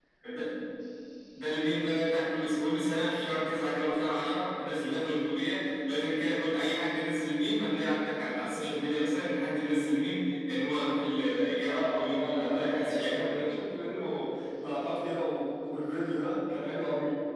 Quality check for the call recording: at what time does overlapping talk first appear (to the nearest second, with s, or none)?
12 s